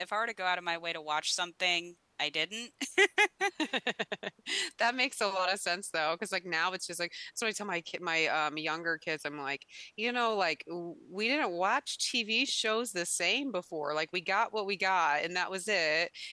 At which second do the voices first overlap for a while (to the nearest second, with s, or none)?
none